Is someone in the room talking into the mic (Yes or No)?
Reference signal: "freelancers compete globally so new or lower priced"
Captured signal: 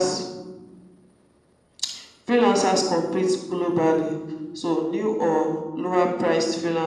No